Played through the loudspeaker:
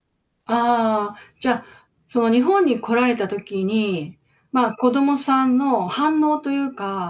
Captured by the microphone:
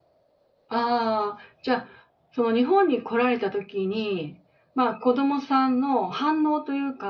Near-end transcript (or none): none